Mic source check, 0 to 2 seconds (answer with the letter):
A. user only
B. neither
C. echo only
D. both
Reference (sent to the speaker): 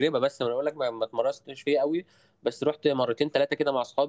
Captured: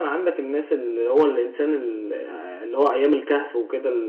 A